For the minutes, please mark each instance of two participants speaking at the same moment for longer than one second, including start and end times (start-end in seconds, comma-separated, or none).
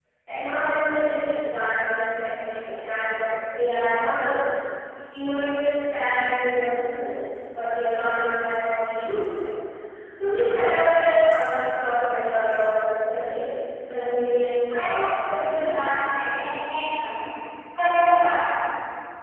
14.7-15.9